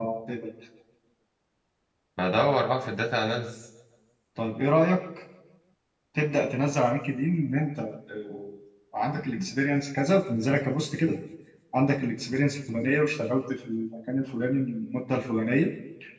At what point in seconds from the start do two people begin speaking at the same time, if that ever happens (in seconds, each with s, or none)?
none